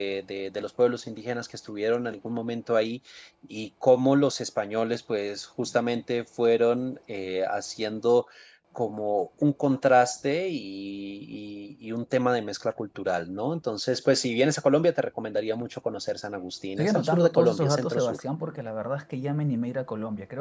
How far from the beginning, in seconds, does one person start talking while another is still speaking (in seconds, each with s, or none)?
16.8 s